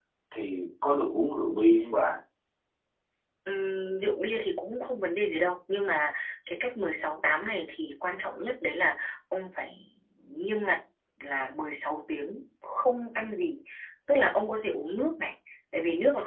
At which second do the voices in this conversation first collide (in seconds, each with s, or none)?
none